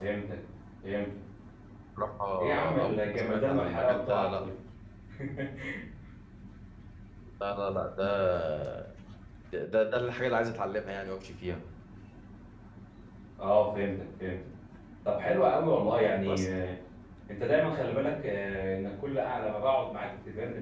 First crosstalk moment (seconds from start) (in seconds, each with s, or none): 2.4 s